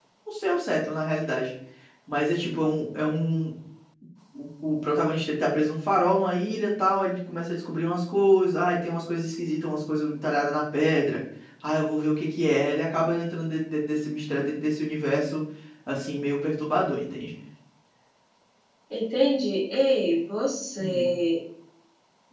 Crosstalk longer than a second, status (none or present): none